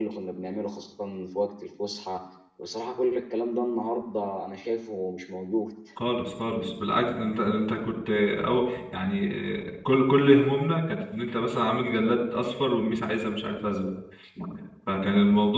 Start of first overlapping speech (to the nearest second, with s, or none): none